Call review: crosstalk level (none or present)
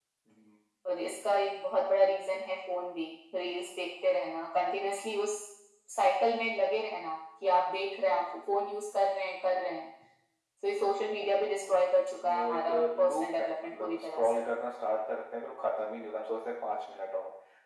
present